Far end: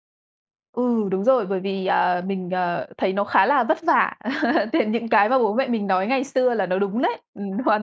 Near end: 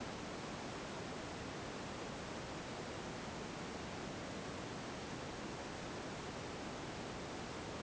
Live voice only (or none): none